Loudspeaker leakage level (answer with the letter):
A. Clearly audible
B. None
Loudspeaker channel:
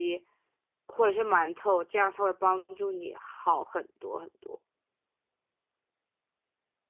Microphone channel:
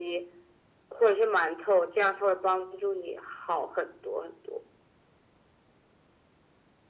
A